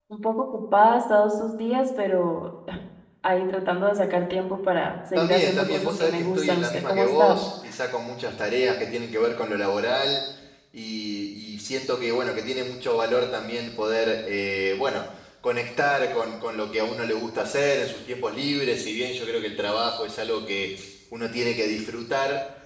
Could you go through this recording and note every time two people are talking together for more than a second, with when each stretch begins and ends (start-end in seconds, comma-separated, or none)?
5.2-7.4